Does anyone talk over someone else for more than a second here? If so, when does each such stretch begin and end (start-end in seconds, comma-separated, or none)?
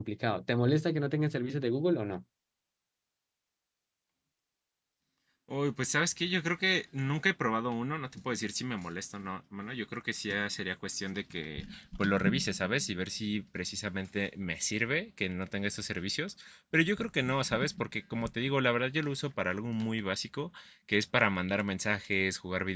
none